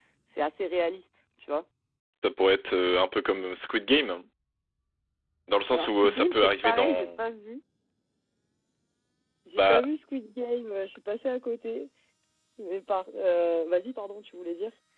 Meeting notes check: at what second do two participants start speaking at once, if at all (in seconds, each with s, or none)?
5.7 s